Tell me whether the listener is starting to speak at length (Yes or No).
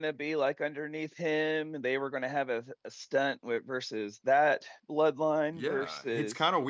Yes